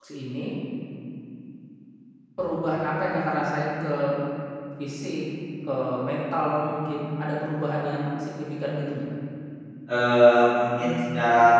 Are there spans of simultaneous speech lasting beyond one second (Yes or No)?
No